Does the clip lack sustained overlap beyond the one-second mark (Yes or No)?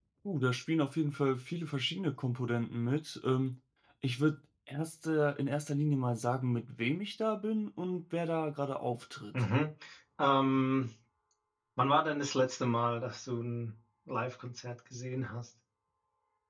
Yes